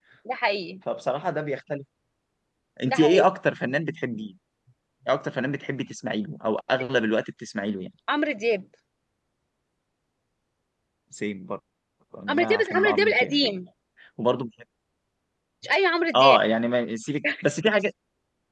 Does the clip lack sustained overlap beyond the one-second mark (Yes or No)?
No